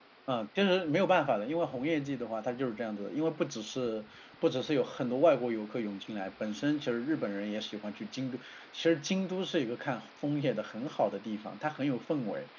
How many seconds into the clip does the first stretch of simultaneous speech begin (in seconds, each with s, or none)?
none